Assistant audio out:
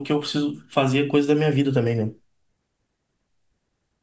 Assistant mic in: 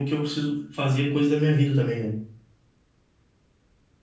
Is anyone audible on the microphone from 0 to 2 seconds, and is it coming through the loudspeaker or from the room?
echo only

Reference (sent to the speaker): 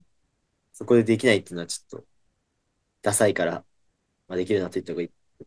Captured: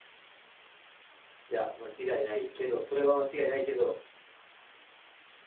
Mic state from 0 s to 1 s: neither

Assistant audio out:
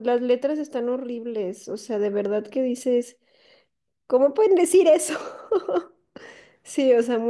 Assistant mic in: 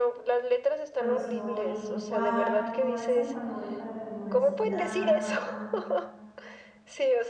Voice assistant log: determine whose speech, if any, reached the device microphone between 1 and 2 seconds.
both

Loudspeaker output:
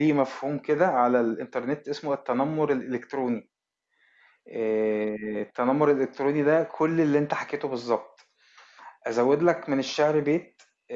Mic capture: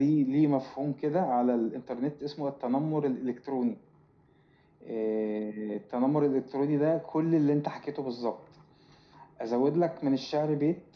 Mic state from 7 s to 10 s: echo only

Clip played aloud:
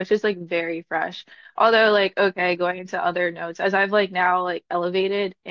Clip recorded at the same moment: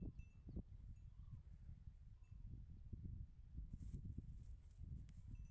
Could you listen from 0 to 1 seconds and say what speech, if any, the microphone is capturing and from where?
neither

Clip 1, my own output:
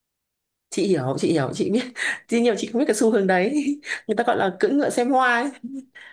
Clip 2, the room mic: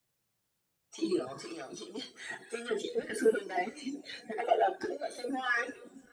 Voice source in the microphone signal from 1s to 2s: echo only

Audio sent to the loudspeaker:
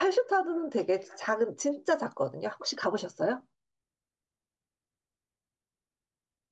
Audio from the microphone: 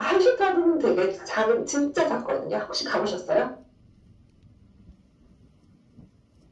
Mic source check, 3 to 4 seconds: echo only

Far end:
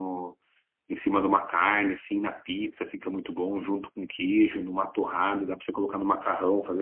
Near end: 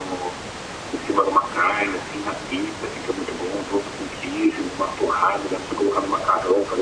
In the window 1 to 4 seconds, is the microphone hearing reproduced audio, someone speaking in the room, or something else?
echo only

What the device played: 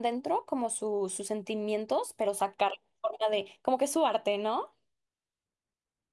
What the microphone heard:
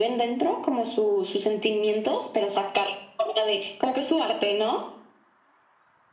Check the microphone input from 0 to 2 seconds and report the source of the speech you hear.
echo only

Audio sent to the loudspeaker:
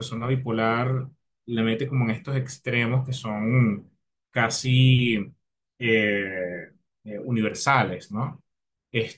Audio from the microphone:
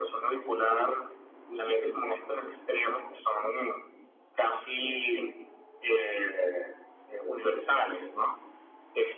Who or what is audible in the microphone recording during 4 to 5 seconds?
echo only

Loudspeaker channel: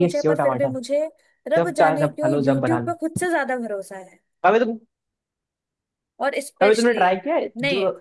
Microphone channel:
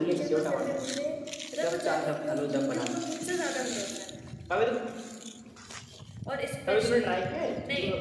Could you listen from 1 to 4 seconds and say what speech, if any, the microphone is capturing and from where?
echo only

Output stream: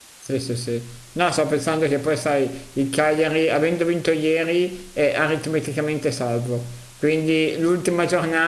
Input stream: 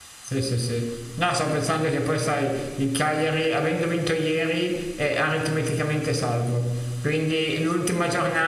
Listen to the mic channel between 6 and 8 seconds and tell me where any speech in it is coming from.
echo only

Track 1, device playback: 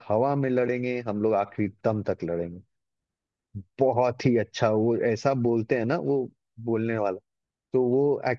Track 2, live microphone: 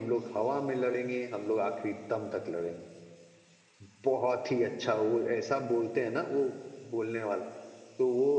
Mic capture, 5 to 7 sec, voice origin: echo only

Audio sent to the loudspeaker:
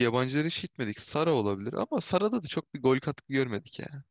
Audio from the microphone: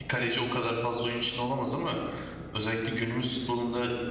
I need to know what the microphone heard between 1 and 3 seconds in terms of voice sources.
user only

